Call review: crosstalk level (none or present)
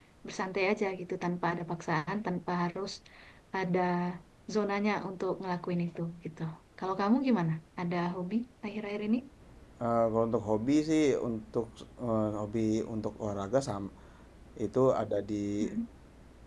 none